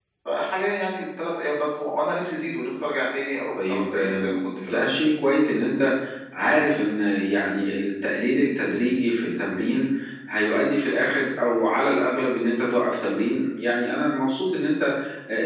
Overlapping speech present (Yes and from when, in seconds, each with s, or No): Yes, from 3.6 s